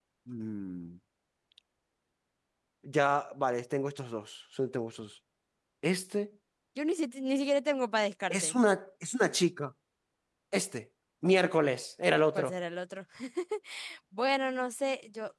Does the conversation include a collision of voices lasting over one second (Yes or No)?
No